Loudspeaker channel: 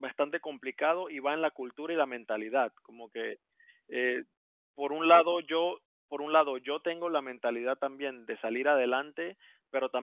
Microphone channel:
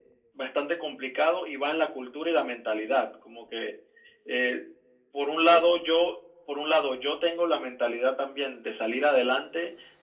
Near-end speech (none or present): none